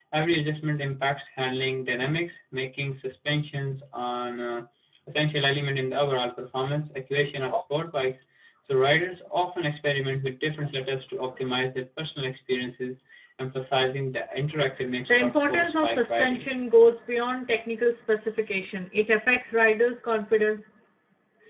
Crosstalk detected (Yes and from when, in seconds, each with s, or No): Yes, from 15.1 s